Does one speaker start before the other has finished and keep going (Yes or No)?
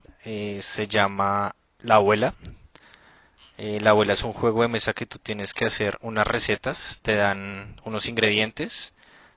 No